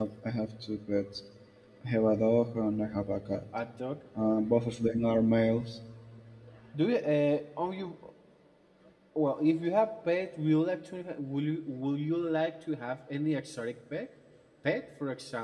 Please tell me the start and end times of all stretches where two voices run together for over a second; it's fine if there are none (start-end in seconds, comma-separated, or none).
none